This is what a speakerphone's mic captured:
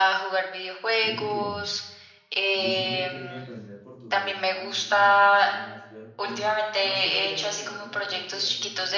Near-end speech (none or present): present